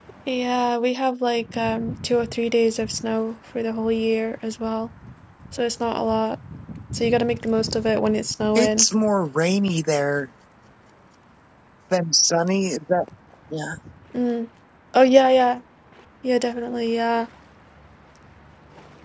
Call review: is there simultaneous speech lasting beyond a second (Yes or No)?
No